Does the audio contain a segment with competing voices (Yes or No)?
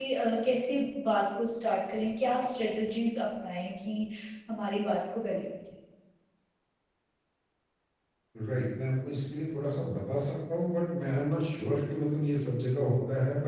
No